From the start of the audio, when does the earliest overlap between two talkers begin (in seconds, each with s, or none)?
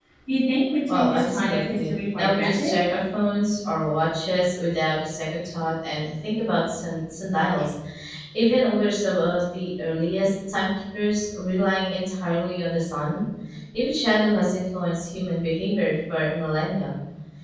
0.9 s